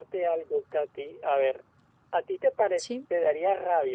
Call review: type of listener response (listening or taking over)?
listening